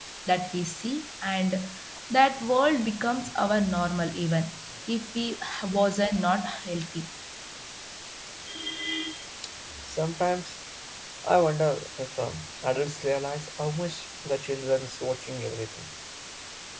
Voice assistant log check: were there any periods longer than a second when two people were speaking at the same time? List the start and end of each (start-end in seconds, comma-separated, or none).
none